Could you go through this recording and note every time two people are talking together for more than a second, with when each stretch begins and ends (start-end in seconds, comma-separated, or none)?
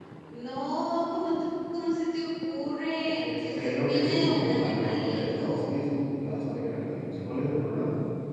3.1-5.8